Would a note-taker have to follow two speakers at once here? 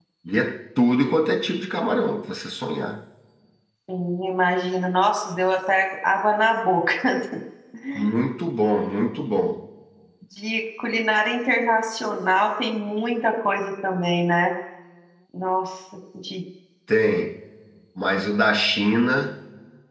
No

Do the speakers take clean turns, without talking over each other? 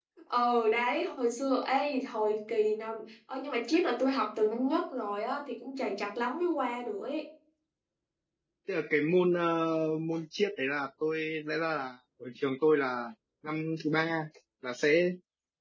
Yes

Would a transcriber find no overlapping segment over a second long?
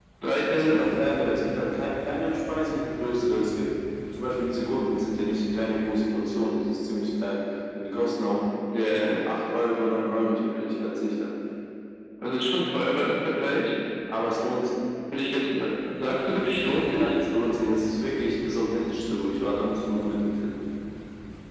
Yes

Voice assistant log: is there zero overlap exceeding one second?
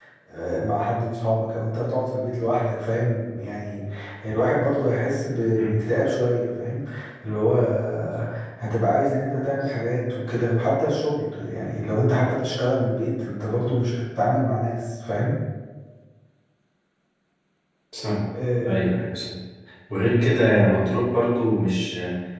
Yes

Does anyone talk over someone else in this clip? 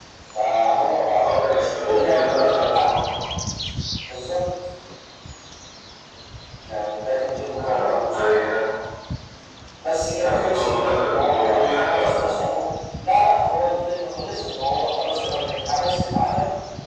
Yes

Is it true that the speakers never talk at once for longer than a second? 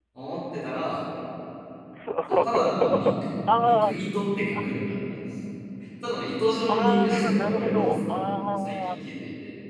No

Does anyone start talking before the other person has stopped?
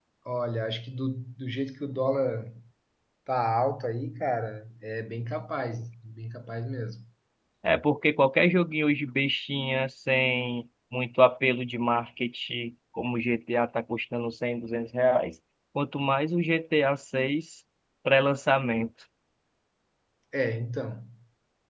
No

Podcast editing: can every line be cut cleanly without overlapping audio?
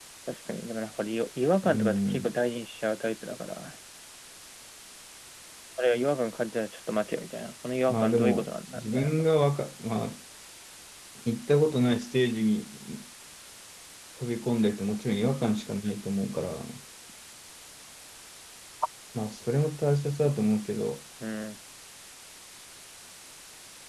No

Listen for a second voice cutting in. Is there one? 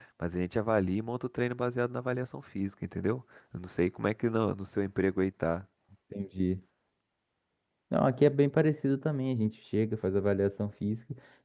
No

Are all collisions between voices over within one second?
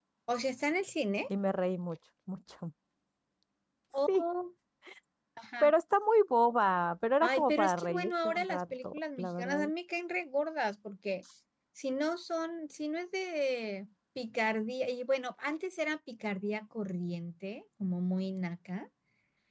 No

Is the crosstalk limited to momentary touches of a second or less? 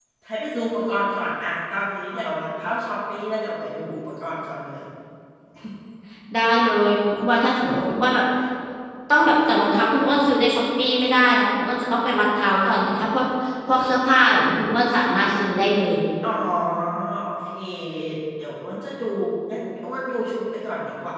Yes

